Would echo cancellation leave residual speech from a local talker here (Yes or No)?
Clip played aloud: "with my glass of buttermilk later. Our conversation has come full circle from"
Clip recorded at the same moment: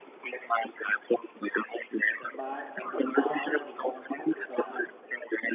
Yes